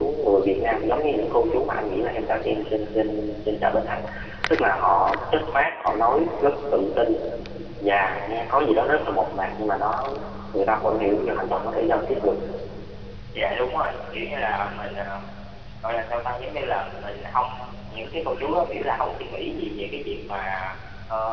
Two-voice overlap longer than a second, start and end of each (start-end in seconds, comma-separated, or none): none